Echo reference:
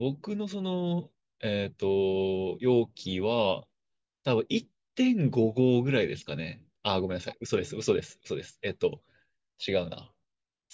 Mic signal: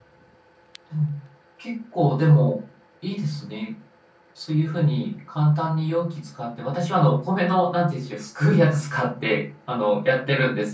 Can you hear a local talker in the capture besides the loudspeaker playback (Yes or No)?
Yes